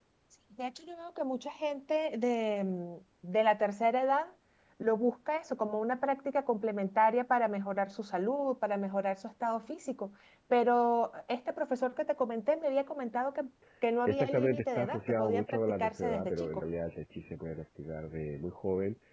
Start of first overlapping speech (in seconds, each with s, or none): 14.1 s